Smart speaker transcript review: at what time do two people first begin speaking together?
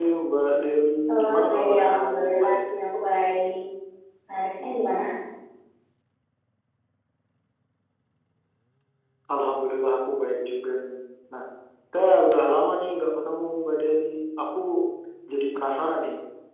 1 s

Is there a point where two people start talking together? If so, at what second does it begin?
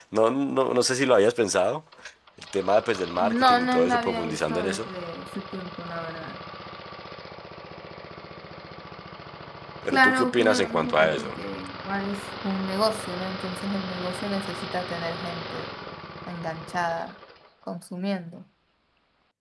3 s

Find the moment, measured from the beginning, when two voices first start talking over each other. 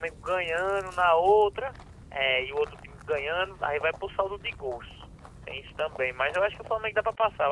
none

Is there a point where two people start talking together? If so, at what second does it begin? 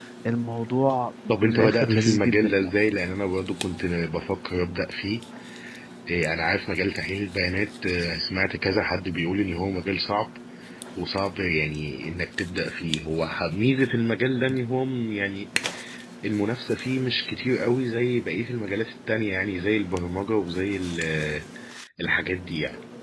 1 s

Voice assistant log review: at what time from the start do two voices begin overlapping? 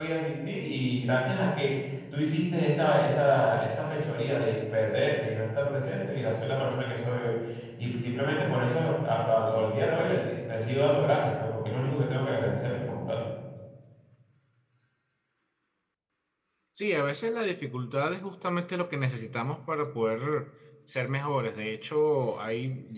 none

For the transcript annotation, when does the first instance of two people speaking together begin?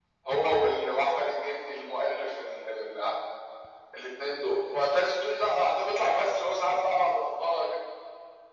none

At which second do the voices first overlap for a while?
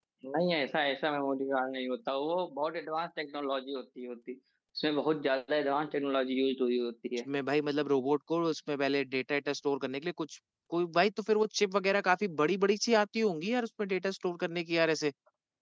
none

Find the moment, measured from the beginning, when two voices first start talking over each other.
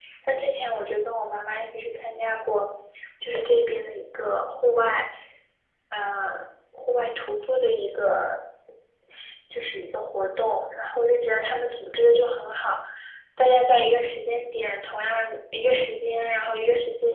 none

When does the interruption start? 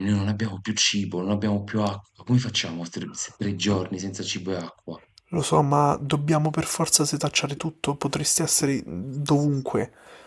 none

